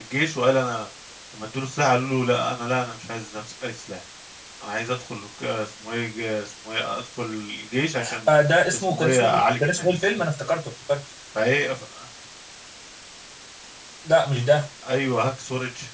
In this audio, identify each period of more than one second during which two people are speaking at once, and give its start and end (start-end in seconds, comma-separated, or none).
8.7-10.1